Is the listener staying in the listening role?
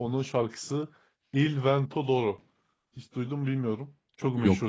Yes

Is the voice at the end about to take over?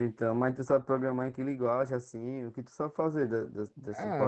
Yes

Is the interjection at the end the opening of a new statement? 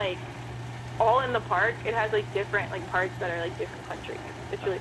Yes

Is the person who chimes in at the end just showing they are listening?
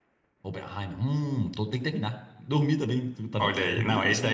No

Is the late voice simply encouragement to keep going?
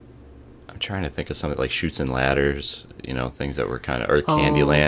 No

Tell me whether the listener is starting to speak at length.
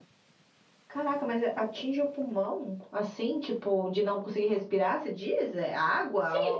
Yes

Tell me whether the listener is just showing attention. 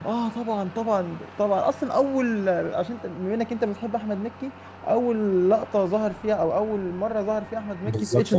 No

